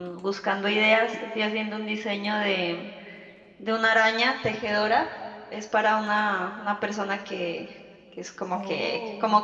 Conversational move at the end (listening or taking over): listening